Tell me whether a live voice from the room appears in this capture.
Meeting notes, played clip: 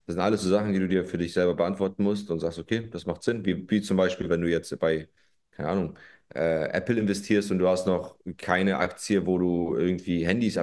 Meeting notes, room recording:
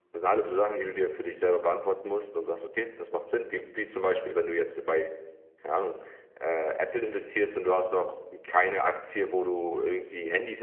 No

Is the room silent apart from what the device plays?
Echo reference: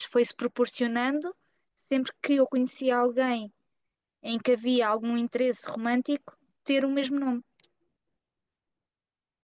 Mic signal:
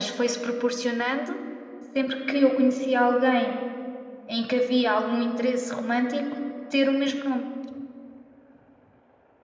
Yes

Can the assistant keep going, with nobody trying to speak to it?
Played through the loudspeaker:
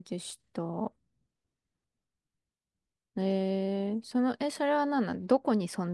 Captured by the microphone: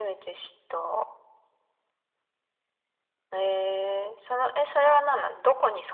Yes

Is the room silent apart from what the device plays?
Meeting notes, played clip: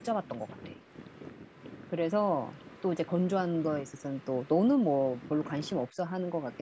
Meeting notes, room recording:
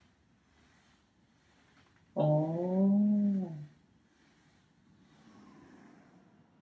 No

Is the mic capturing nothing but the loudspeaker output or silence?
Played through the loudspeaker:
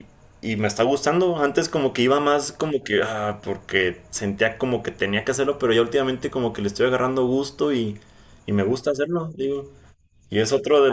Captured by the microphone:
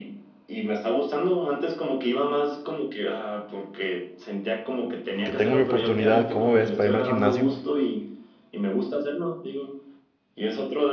No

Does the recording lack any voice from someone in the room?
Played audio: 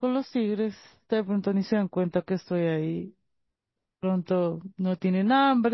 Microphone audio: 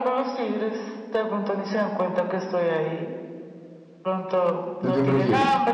No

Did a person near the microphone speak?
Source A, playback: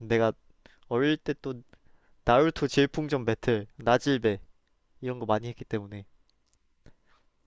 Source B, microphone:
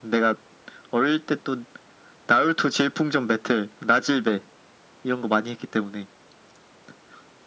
No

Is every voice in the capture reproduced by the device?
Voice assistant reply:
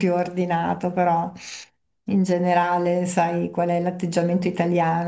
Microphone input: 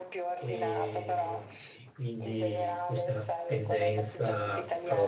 No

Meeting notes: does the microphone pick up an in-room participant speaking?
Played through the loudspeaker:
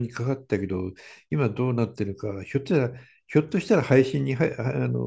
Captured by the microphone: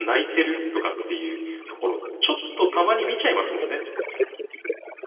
Yes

